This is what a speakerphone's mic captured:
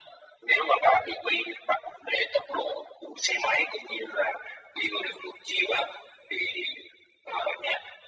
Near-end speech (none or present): none